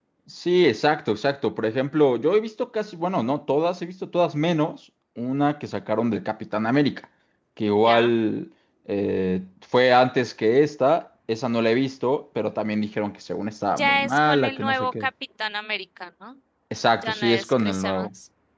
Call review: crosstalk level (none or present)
present